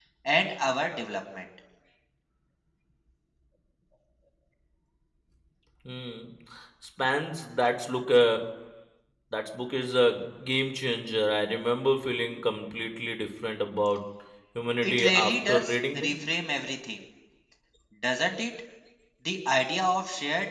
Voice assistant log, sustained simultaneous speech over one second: present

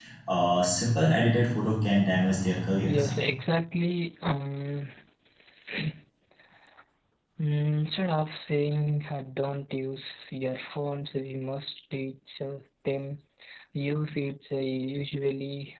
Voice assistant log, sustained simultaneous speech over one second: none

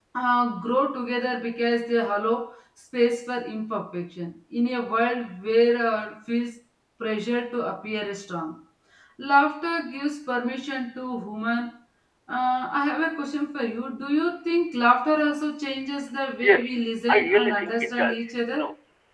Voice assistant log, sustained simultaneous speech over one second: present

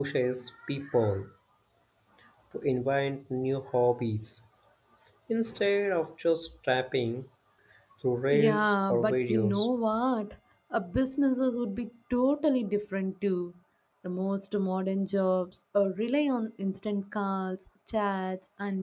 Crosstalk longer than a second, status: present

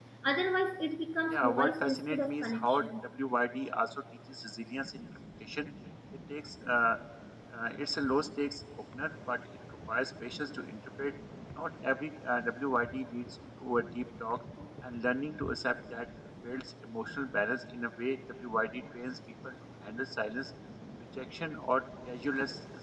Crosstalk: present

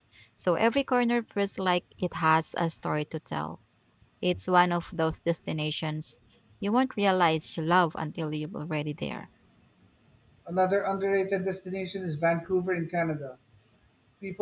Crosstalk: none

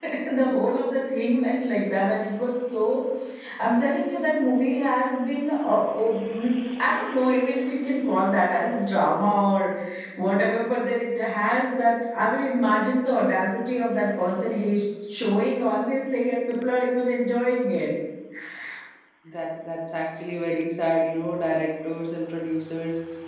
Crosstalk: none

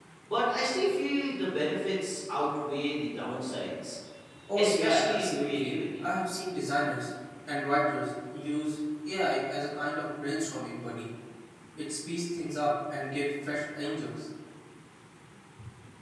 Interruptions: present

